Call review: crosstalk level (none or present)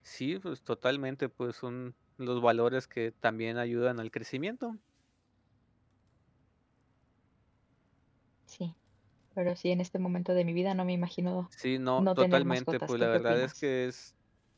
present